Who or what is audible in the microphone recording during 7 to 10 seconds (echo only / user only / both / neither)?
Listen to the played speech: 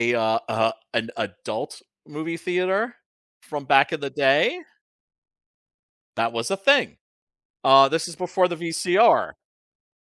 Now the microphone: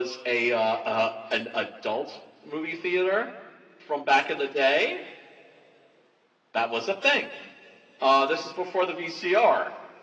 echo only